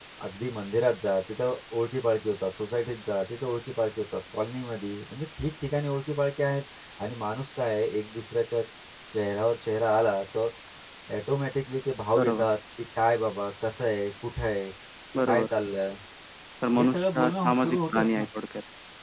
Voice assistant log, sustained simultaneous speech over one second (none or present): present